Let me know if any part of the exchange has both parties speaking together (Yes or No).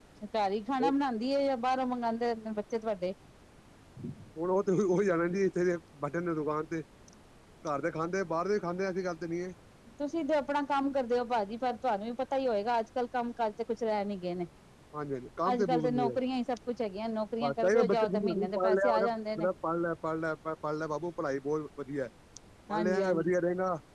Yes